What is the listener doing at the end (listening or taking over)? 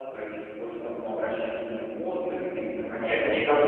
taking over